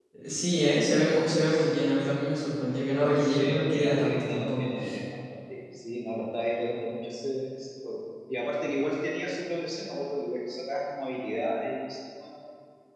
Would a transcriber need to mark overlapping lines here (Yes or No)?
Yes